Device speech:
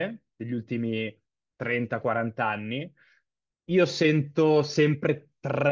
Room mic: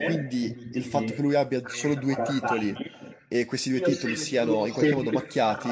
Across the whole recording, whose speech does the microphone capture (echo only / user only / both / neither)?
both